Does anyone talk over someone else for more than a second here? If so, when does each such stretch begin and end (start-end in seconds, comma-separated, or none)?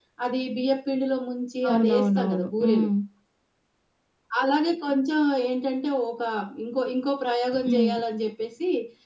1.7-2.9